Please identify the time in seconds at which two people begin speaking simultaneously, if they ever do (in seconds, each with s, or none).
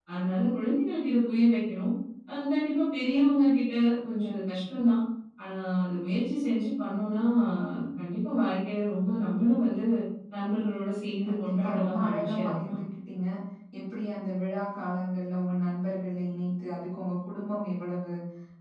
11.2 s